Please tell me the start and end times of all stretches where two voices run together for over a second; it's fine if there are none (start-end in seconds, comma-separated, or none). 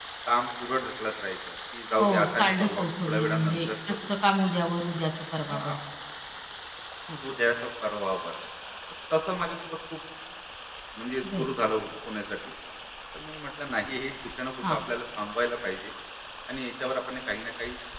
2.0-4.1